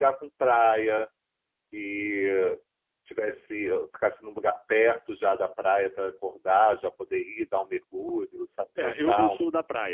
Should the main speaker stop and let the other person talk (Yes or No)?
Yes